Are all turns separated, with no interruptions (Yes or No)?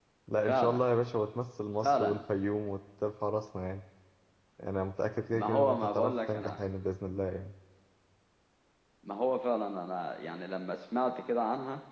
No